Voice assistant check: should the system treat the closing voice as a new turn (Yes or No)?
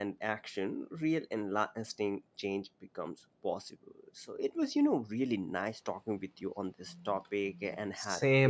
Yes